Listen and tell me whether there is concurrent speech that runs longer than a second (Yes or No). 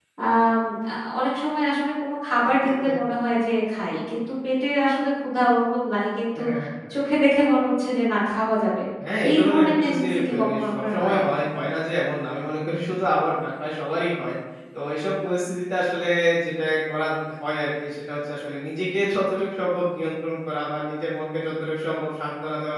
Yes